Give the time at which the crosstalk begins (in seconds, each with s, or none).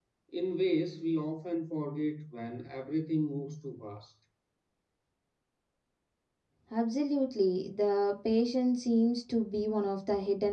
none